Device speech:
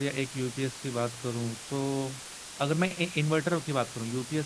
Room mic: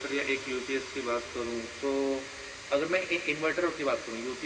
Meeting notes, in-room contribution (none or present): none